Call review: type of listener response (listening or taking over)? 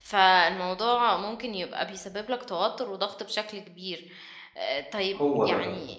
listening